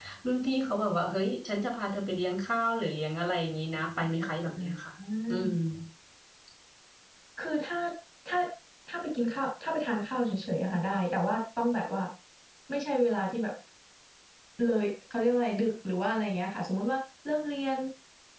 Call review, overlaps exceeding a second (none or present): none